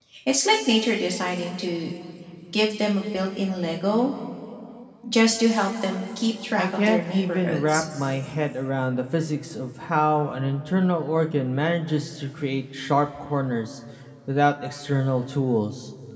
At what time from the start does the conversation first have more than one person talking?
6.6 s

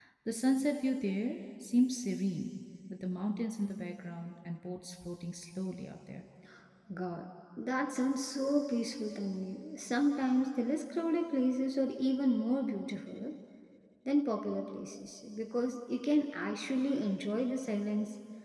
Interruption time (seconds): none

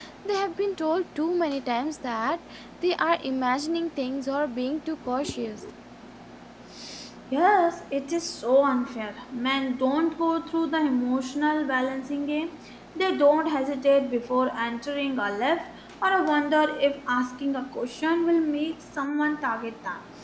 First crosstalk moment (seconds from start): none

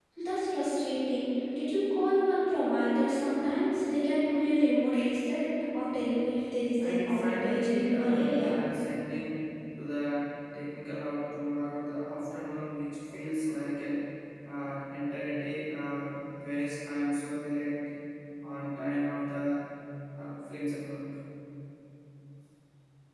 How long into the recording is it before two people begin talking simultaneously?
6.8 s

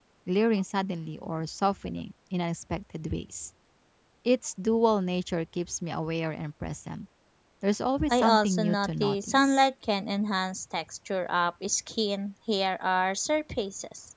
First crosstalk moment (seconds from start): 8.1 s

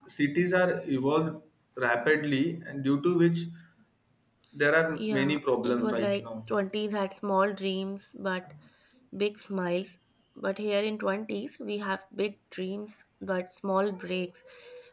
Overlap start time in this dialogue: 4.9 s

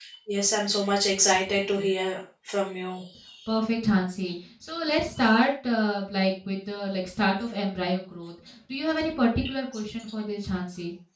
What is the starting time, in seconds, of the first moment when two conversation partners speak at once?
none

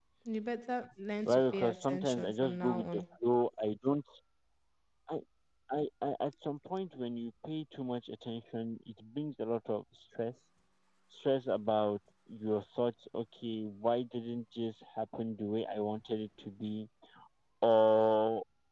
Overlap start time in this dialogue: 1.2 s

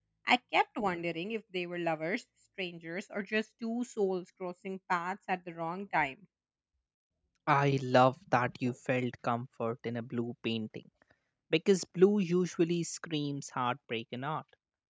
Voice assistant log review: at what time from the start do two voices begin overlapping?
none

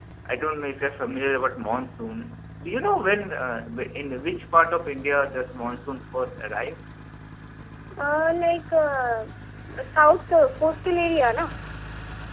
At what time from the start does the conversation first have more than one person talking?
none

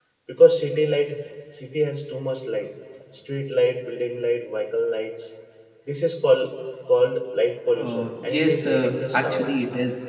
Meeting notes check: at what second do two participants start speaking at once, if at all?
7.7 s

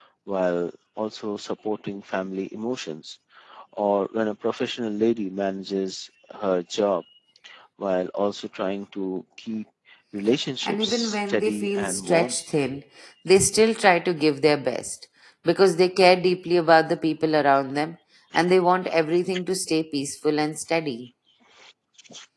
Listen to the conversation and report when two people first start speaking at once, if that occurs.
10.6 s

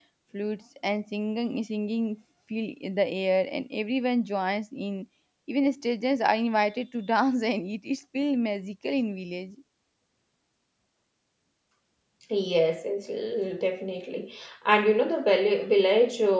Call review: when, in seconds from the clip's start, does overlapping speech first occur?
none

